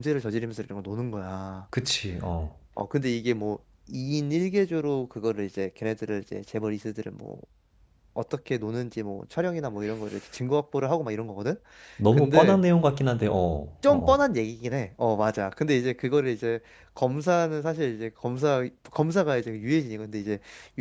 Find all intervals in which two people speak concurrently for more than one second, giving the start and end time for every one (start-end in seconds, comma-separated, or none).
none